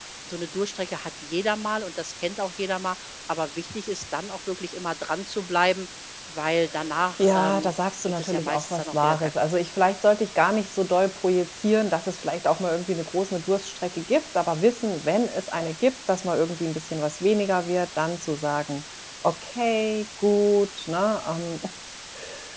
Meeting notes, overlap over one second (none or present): present